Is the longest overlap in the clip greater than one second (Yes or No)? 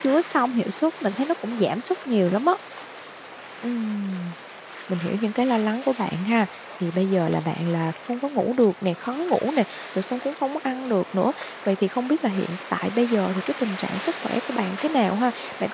No